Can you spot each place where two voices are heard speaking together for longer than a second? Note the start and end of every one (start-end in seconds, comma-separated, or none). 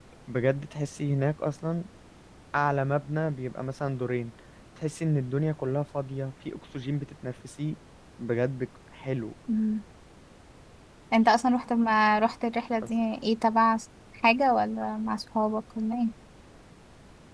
none